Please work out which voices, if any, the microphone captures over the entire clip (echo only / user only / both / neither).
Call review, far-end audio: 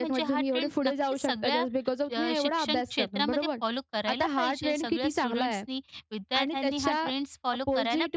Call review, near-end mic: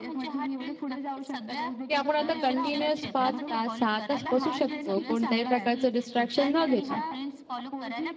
both